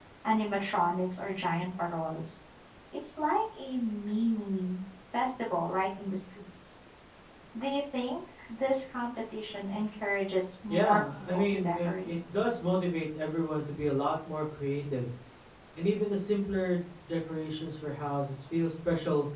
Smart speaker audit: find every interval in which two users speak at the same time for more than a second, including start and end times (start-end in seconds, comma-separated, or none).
10.7-12.1